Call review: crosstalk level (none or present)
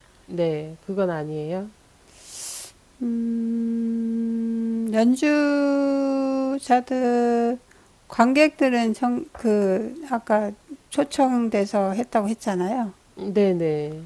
none